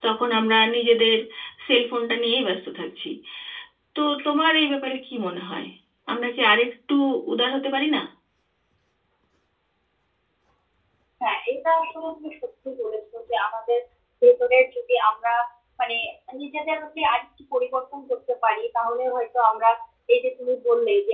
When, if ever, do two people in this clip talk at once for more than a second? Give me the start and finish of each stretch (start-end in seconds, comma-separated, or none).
none